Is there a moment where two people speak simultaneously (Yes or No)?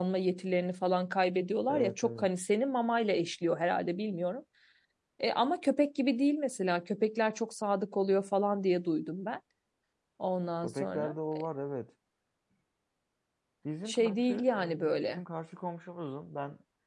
Yes